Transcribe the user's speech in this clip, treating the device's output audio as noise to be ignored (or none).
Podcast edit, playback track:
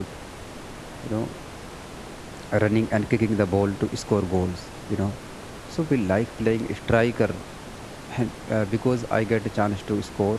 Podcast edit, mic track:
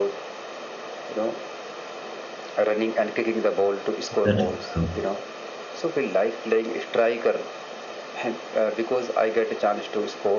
That is true.